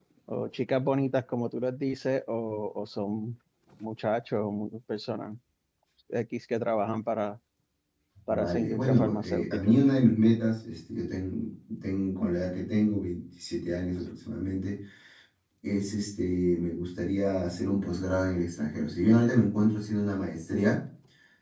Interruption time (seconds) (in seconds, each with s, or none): 8.3 s